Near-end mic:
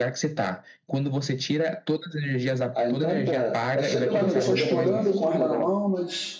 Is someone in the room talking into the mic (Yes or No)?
Yes